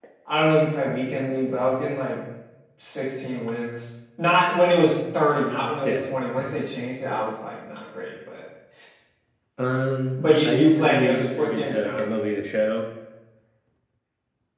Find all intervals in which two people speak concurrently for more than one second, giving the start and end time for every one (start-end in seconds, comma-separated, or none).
10.4-12.0